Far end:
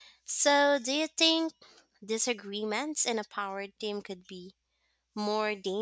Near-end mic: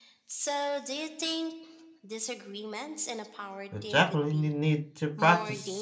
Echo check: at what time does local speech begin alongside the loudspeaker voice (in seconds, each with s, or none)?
3.7 s